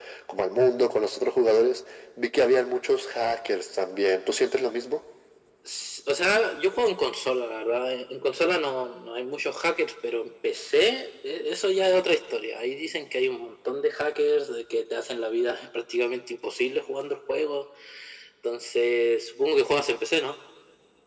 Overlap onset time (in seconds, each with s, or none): none